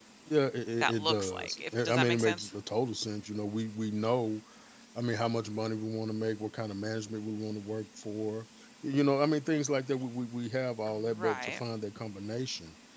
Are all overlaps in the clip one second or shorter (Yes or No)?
No